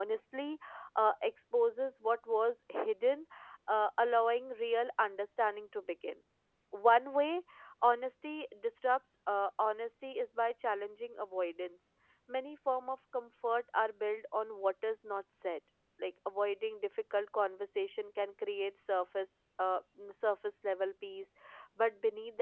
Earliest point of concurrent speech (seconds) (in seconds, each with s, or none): none